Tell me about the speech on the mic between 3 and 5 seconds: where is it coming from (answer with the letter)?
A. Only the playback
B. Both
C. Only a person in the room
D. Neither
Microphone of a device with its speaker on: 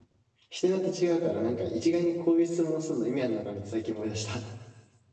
C